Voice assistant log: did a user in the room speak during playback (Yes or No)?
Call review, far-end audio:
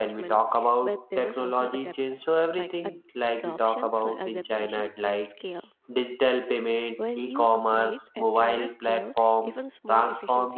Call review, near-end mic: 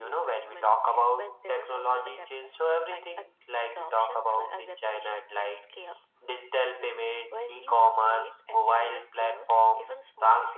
No